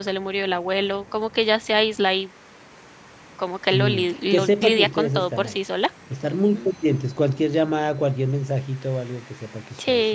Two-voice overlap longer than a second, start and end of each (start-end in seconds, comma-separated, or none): 3.7-5.5